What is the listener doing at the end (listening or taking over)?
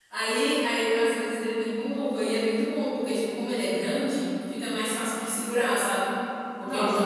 listening